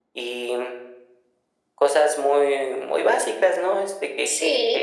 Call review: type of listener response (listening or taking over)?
taking over